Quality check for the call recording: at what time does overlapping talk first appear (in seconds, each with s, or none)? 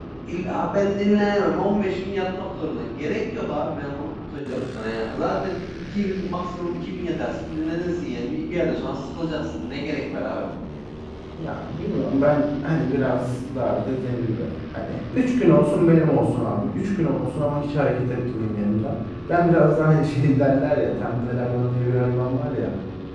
none